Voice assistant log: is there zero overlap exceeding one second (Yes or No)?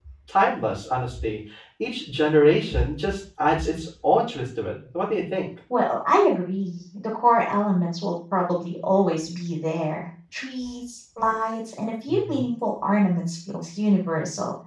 Yes